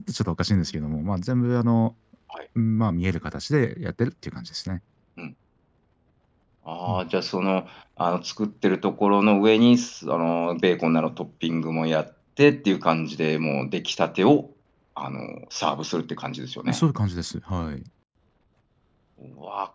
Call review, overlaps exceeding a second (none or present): none